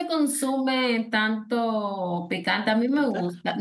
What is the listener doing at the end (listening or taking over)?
listening